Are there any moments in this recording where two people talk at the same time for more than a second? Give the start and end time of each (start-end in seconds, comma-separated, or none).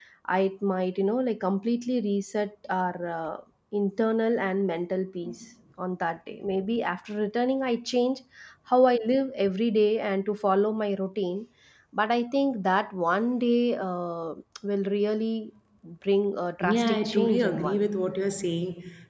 16.6-17.9